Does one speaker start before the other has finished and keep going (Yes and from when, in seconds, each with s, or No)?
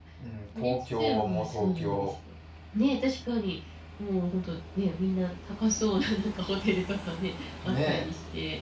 Yes, from 0.6 s